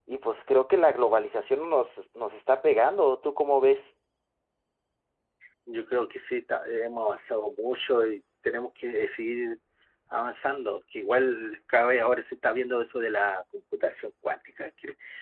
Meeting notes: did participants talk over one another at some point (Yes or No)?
No